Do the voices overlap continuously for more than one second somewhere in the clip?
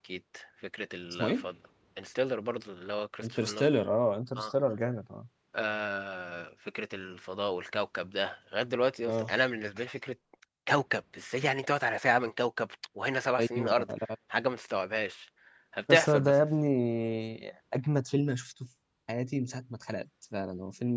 No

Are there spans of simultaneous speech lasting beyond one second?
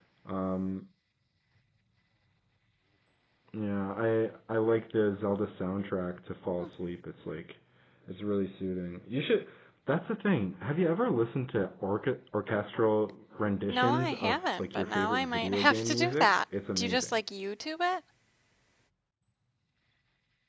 Yes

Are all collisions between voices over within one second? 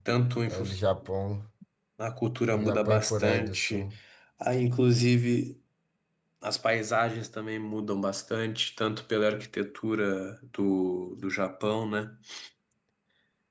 No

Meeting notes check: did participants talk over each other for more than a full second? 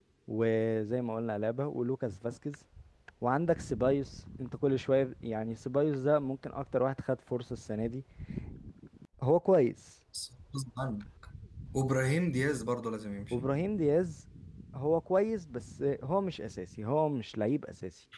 No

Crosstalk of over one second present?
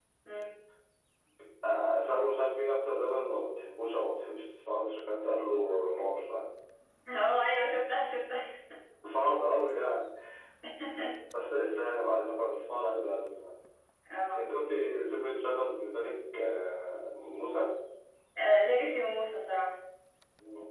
No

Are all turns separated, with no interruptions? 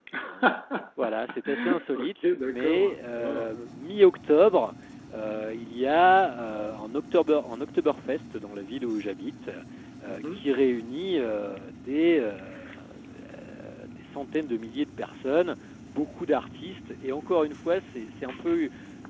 No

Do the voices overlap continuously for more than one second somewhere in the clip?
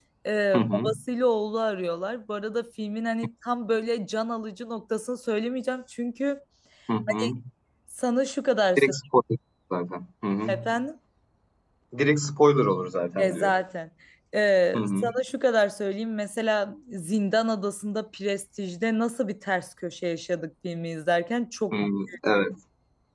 No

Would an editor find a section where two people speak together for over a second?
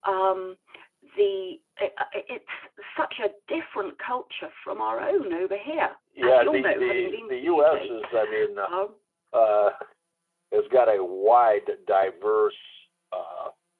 Yes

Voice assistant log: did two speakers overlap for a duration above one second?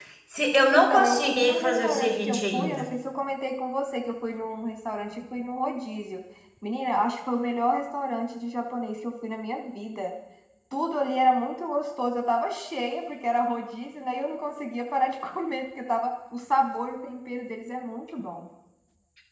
Yes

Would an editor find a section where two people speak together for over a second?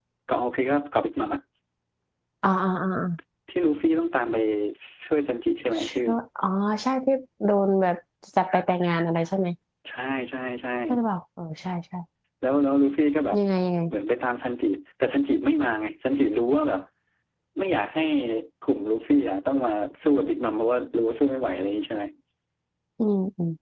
No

